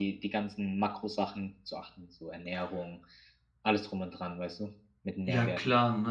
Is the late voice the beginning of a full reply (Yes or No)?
Yes